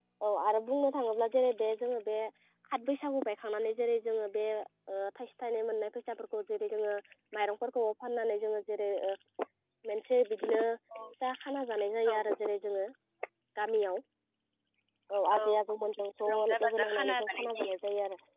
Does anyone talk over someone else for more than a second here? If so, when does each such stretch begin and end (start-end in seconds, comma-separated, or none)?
16.3-17.7